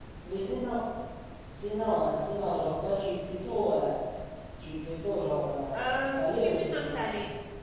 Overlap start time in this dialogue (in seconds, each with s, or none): 5.7 s